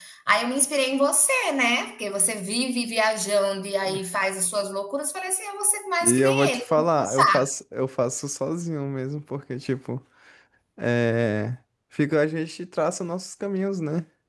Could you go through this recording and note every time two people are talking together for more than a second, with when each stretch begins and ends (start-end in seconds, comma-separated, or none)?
6.0-7.3